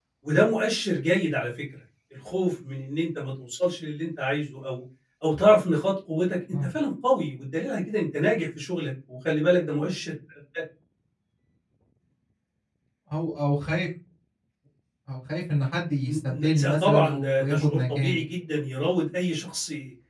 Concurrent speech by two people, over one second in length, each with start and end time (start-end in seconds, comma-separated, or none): 16.0-18.2